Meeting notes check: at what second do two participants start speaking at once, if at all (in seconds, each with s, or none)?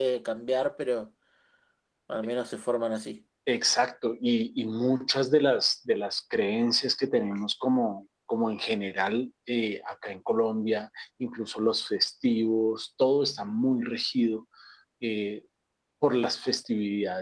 none